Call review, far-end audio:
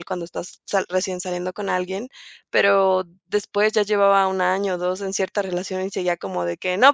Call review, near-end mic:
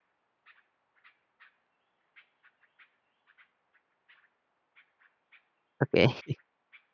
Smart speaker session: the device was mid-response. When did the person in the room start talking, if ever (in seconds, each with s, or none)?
5.8 s